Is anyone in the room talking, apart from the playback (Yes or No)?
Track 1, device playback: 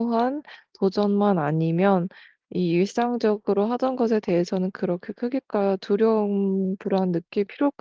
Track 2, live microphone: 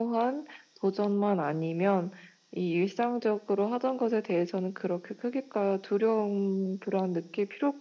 No